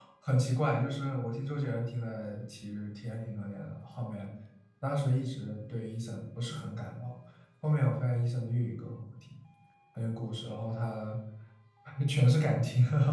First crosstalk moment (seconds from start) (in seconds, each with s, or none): none